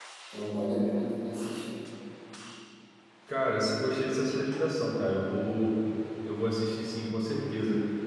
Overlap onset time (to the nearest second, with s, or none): none